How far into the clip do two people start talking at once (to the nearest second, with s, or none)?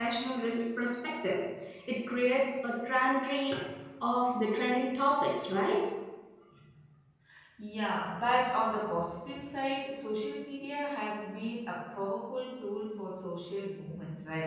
none